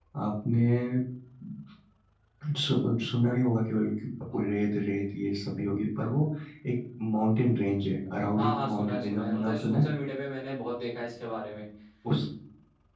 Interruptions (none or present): present